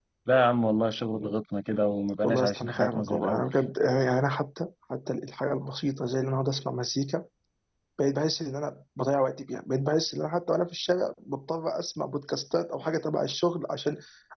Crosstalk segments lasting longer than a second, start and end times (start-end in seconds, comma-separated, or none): 2.2-3.5